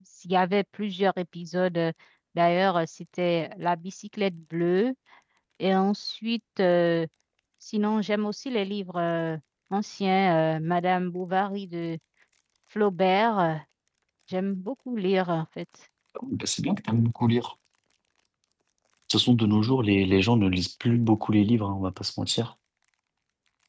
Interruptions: none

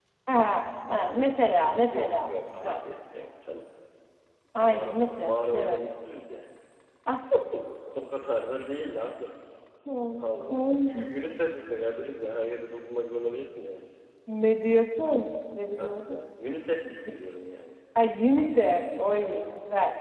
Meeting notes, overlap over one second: present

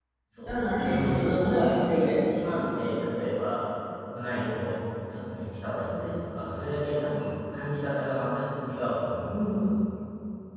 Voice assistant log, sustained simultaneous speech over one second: present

